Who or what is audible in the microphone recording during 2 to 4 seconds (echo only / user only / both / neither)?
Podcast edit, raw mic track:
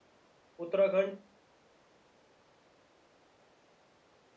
neither